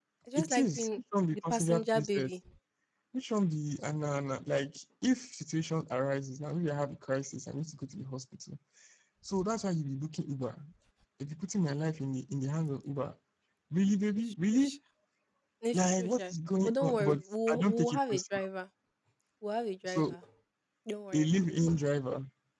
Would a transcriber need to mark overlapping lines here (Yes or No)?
Yes